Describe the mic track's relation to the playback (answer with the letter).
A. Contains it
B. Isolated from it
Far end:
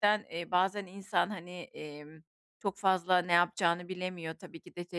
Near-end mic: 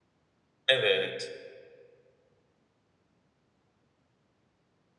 B